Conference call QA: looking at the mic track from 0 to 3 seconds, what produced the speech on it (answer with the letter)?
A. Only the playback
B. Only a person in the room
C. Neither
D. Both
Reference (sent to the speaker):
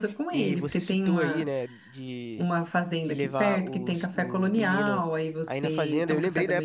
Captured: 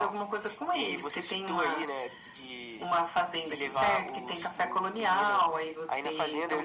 A